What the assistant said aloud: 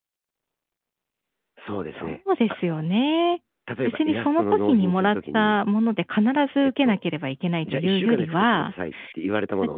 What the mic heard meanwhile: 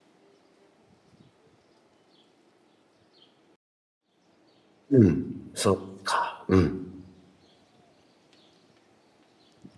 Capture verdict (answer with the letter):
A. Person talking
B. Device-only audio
A